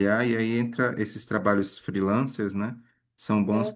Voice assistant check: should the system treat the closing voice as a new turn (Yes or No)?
No